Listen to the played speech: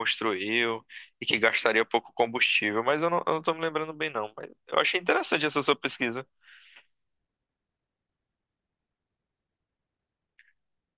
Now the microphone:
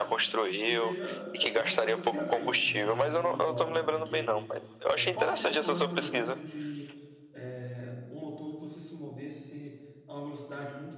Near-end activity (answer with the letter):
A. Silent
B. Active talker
B